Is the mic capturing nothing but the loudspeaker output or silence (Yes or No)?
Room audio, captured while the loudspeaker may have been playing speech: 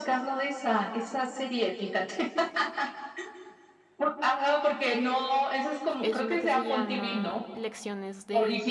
No